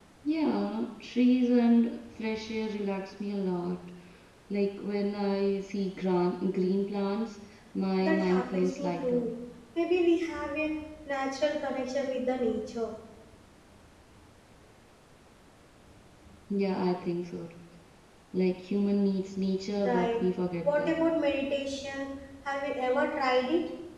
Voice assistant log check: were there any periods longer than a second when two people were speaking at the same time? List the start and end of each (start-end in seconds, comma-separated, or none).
8.0-9.2